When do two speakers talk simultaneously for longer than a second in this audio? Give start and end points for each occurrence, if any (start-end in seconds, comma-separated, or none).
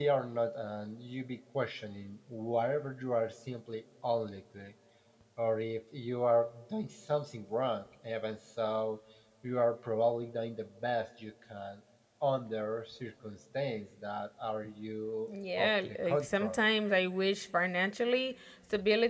15.3-16.6